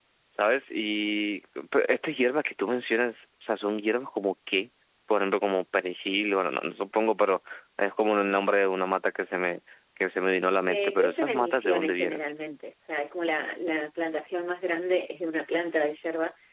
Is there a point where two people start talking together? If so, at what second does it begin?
10.7 s

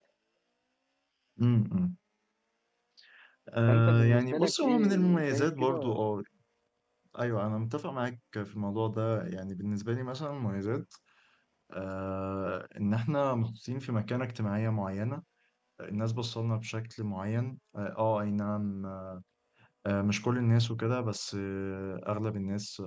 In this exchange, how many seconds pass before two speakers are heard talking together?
3.7 s

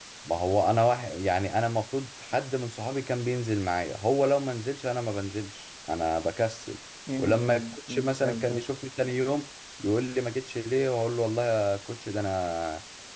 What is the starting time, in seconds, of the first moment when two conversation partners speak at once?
7.2 s

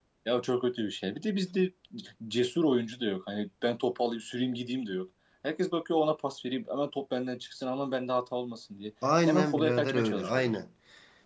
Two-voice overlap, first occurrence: 9.3 s

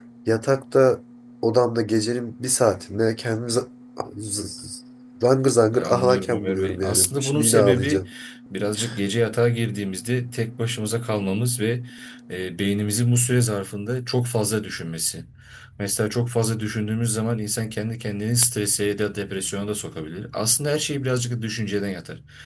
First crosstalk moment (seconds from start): 5.7 s

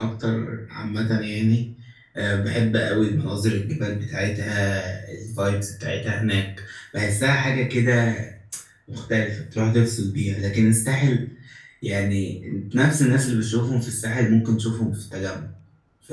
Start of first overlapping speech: none

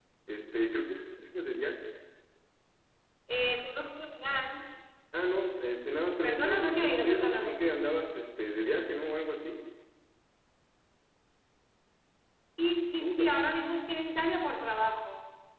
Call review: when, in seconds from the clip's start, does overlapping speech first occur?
6.2 s

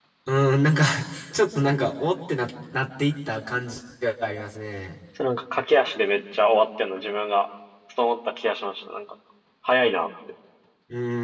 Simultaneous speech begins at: none

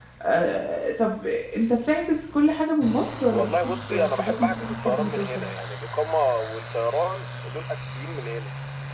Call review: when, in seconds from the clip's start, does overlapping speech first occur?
3.3 s

